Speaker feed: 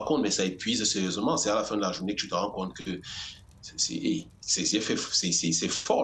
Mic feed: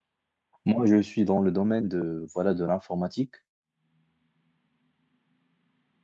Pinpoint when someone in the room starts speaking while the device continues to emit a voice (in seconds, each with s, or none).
0.7 s